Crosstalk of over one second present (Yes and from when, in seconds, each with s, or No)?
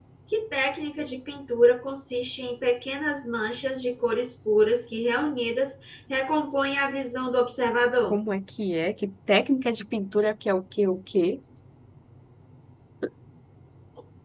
No